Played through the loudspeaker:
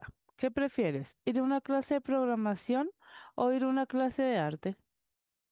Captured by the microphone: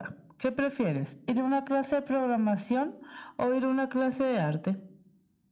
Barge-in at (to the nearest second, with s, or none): none